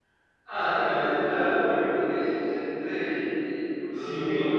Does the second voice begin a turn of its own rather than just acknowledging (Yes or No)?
Yes